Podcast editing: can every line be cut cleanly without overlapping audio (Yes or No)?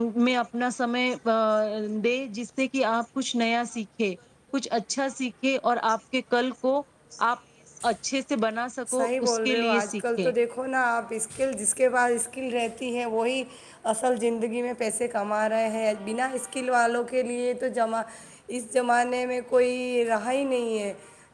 No